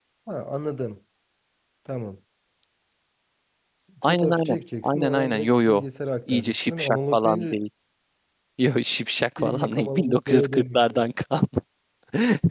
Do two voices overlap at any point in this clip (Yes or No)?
Yes